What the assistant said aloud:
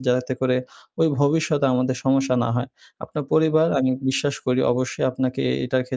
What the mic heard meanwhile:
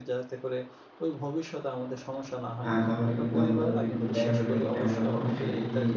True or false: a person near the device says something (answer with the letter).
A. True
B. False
A